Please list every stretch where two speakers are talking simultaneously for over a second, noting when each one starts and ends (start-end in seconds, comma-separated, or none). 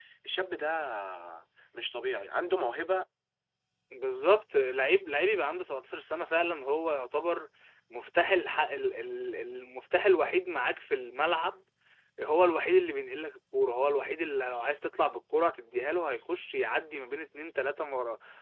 none